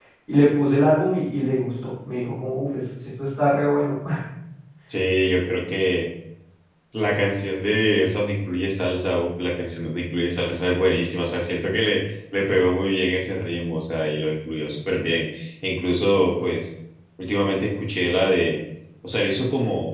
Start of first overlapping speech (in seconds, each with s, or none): none